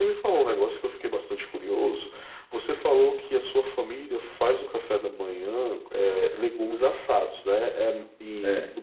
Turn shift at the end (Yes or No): No